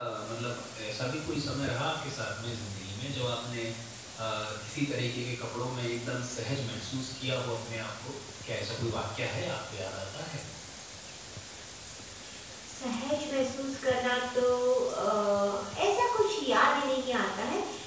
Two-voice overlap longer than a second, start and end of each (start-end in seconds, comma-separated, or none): none